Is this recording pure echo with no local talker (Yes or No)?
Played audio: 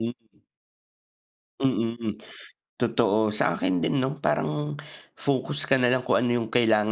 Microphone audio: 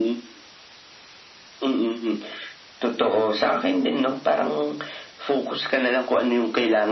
Yes